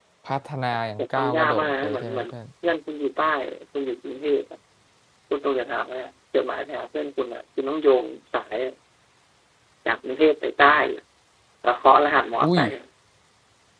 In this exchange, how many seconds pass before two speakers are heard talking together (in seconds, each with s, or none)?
1.0 s